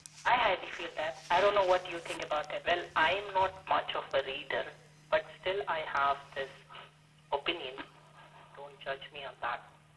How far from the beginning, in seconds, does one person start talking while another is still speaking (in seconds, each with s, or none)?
none